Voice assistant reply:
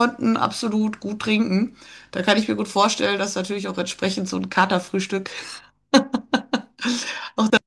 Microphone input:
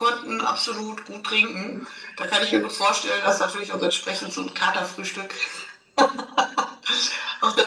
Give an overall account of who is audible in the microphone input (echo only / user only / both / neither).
echo only